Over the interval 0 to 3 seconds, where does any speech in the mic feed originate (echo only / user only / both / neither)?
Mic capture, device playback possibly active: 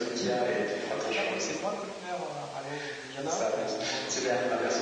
both